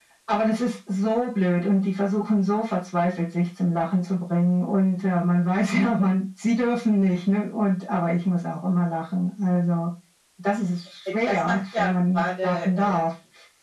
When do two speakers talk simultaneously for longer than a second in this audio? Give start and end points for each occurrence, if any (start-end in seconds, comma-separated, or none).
11.0-13.1